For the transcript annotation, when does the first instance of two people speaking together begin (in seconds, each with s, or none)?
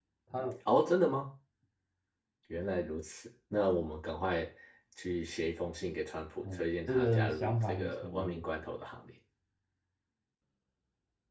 6.4 s